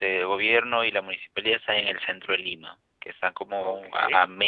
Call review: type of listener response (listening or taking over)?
listening